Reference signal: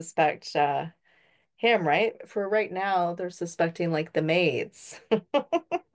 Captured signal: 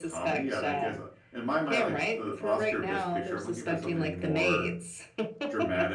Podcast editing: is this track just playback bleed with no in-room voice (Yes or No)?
No